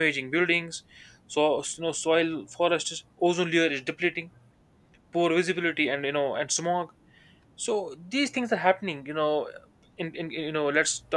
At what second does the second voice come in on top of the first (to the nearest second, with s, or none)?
none